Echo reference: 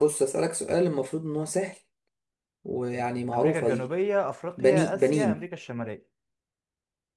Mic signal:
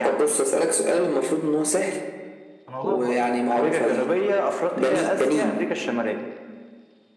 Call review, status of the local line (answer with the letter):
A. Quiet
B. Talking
B